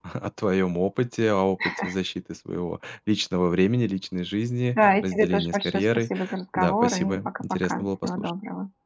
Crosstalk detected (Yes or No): Yes